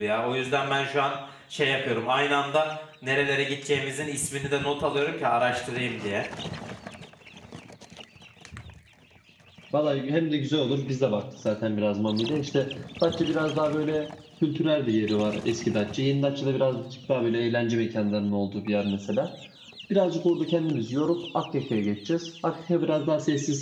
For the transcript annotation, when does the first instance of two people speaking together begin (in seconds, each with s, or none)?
none